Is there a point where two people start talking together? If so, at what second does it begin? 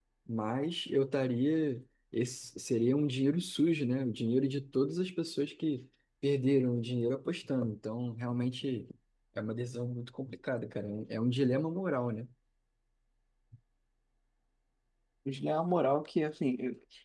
none

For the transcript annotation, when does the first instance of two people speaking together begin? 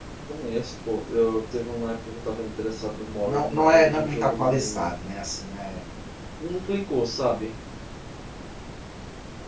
3.2 s

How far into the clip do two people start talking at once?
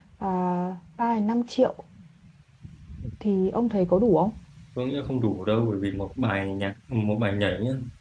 none

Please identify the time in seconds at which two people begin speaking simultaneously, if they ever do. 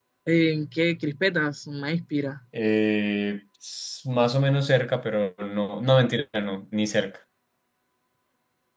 none

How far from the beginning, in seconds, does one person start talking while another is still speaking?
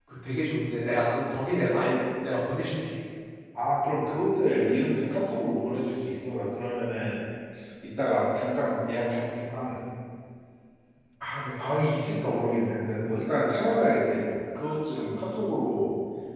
none

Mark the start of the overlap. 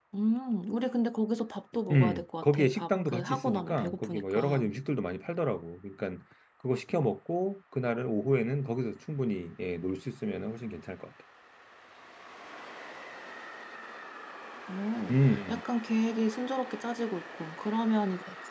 1.9 s

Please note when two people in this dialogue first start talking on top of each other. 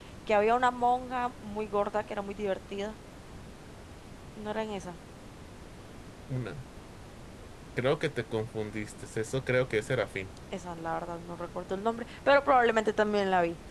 none

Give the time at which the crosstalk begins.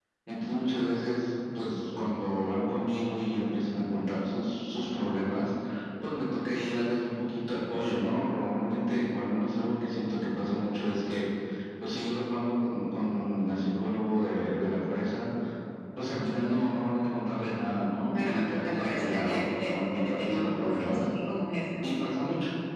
18.1 s

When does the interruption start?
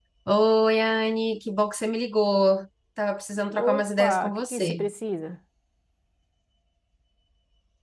3.5 s

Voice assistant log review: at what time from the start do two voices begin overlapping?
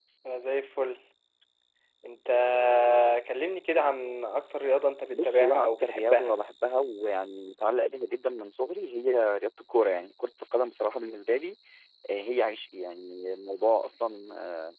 5.1 s

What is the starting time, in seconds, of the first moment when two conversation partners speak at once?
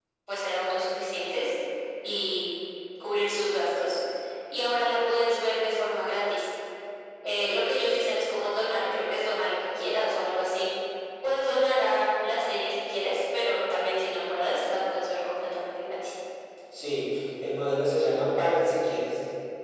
none

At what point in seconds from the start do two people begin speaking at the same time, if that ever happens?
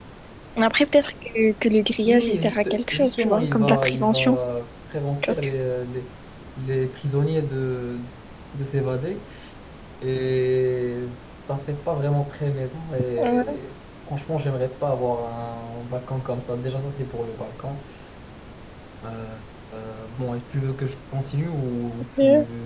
2.1 s

